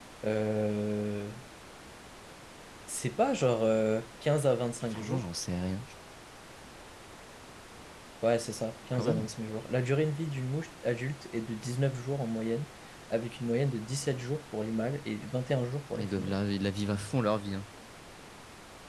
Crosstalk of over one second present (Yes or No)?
No